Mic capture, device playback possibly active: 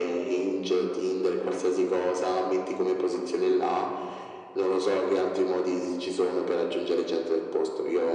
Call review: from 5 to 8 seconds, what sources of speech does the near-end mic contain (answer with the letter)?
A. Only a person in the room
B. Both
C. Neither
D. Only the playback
D